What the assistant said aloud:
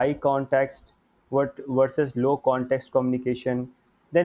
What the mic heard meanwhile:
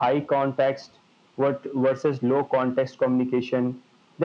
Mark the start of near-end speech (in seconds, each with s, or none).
none